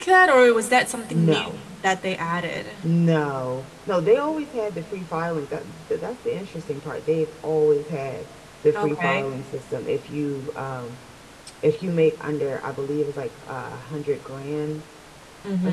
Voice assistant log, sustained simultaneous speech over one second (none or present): none